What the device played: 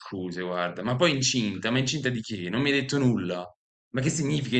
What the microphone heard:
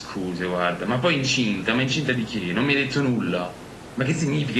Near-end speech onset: none

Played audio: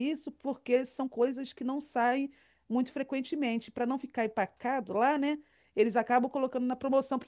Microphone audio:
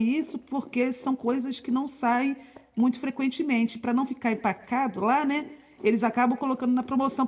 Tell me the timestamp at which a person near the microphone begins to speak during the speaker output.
none

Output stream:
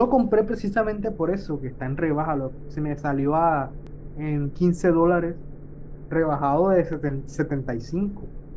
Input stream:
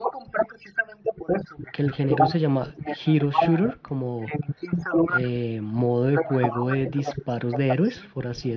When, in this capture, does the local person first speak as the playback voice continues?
1.7 s

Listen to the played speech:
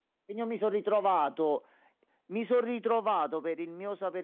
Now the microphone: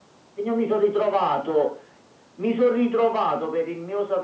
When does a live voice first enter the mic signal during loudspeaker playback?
none

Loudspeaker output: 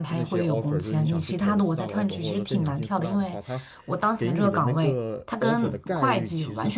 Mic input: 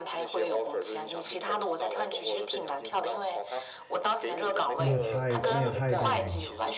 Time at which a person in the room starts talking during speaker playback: 4.8 s

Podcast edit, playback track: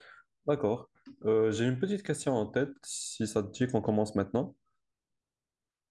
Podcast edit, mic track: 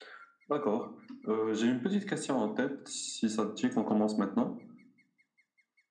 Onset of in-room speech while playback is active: none

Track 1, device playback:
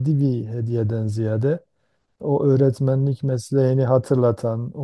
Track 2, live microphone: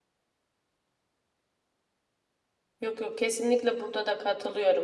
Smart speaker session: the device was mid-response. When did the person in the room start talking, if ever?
2.8 s

